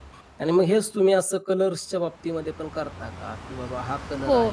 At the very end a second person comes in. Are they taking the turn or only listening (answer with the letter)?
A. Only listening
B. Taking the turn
B